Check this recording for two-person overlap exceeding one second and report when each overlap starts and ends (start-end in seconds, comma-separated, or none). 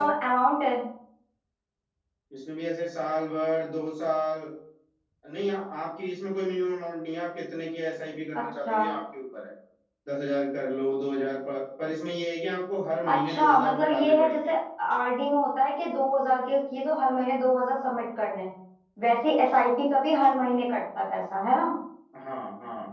13.1-14.4